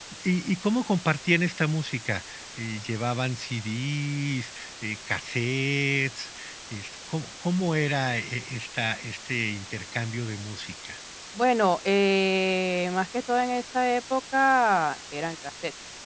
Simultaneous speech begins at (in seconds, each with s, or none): none